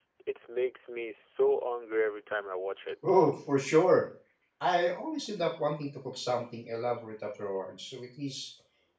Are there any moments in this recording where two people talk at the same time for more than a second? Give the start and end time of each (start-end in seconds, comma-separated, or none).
none